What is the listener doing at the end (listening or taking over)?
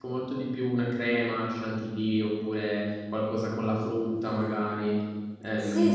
taking over